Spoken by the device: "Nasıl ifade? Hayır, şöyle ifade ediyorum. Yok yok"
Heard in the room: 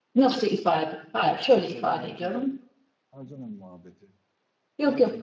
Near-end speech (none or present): present